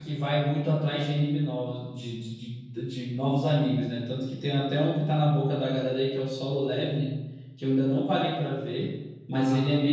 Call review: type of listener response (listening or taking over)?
listening